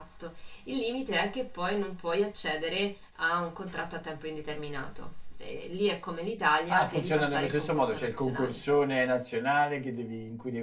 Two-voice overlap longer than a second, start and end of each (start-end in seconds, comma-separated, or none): 6.7-8.6